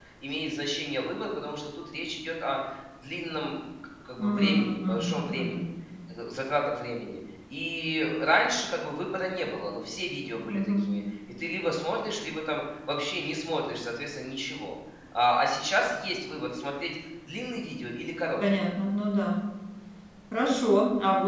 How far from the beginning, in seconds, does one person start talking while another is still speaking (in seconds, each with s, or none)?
4.2 s